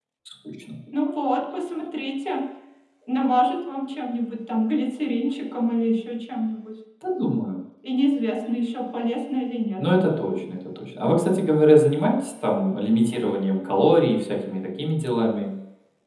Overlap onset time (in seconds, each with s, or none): none